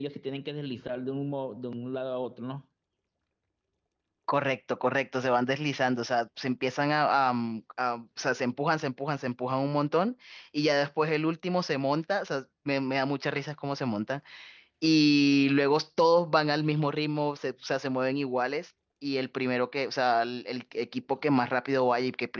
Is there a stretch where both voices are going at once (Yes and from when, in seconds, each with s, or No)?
No